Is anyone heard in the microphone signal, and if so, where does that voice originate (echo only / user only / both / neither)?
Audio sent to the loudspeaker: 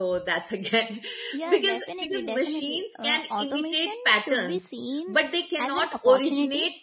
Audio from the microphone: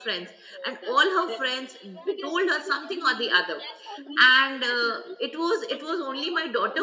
both